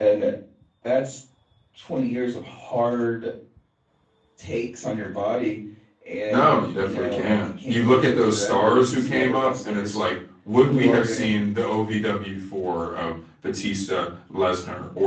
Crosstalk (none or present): present